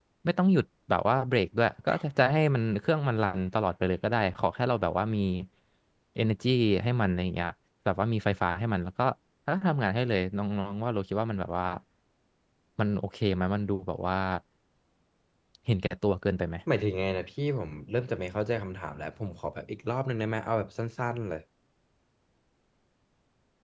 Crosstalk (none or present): none